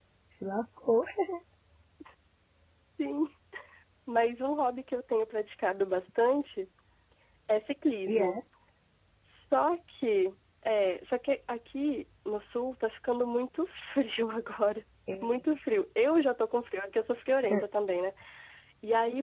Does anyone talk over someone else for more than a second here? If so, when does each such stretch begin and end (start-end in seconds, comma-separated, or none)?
none